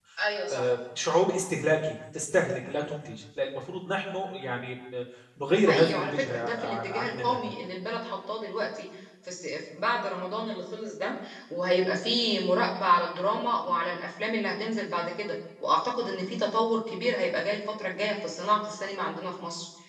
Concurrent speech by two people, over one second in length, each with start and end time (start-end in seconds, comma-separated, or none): 5.5-7.4